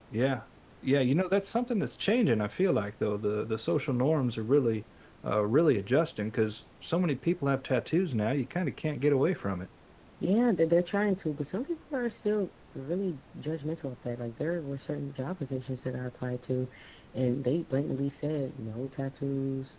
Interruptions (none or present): none